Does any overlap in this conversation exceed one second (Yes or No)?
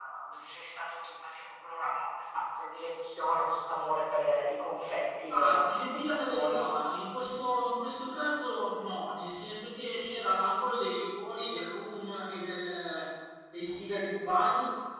Yes